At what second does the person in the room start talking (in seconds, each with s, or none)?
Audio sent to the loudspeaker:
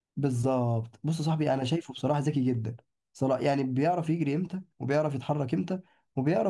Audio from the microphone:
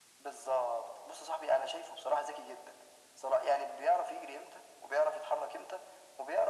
none